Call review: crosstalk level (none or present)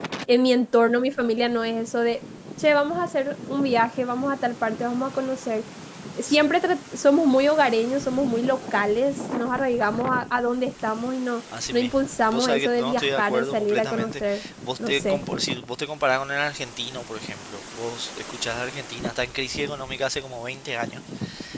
present